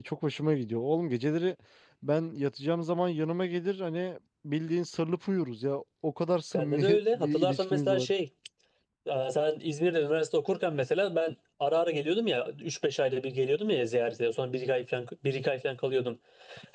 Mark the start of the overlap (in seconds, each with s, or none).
6.5 s